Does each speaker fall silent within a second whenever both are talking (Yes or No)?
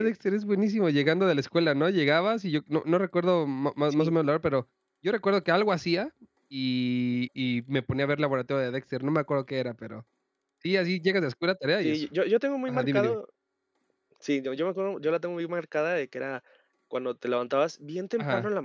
Yes